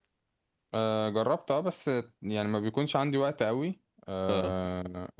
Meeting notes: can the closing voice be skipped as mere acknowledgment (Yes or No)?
Yes